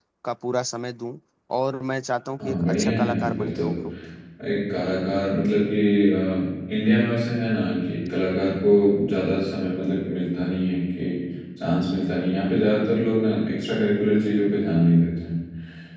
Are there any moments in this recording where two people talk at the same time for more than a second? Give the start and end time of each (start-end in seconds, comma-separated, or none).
2.4-3.6